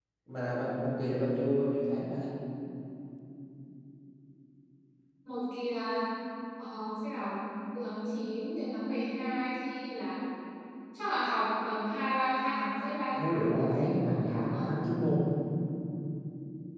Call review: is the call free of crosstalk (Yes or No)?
No